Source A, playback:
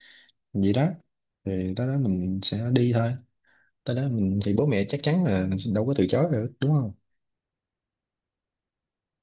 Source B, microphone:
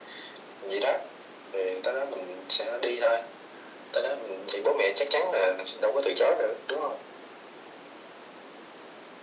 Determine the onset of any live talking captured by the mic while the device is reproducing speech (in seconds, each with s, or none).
none